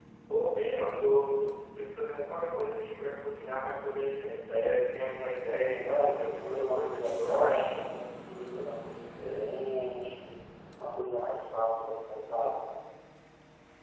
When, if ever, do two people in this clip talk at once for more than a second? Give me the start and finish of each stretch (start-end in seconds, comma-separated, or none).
5.6-7.7